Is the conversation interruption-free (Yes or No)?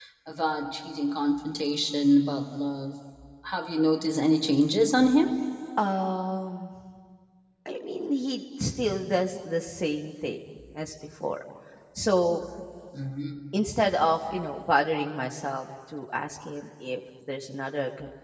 Yes